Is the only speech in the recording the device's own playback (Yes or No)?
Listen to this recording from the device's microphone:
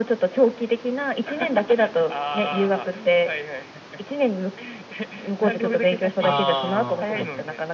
No